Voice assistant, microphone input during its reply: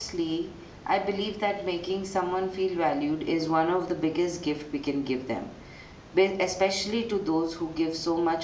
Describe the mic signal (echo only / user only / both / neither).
user only